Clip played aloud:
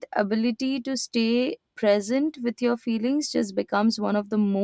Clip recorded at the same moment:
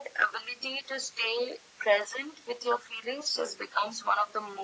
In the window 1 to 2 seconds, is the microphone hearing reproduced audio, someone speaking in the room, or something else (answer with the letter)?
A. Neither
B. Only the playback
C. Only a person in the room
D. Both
B